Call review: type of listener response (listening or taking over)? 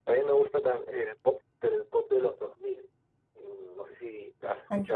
listening